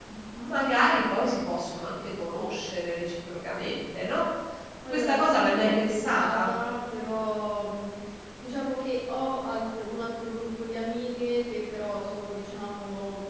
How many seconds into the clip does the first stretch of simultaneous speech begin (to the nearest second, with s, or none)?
5 s